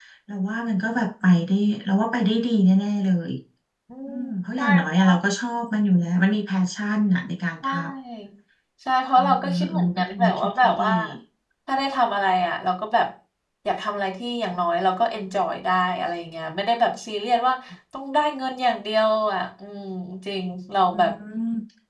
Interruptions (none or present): present